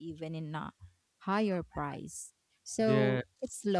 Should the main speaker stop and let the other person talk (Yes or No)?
No